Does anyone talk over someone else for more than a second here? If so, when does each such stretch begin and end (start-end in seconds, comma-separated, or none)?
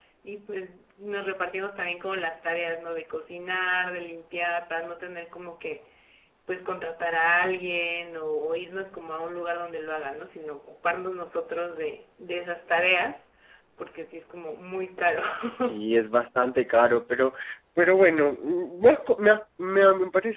none